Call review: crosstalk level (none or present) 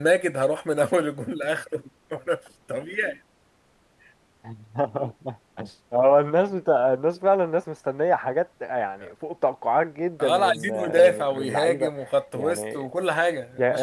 present